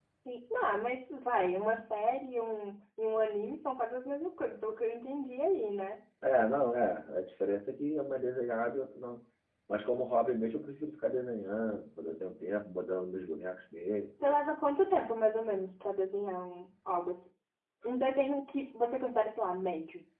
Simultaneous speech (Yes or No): No